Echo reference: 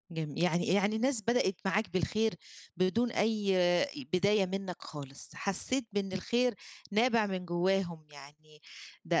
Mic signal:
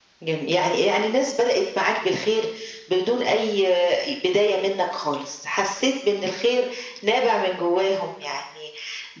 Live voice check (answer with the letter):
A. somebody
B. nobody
B